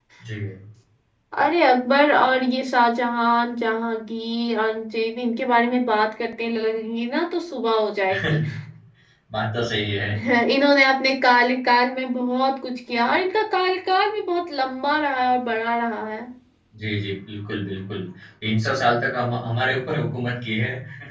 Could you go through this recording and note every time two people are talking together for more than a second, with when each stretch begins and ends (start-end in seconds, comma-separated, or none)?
none